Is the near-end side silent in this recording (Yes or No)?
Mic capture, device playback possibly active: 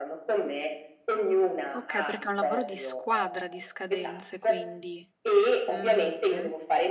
No